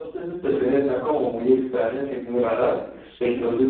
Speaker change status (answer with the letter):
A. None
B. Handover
A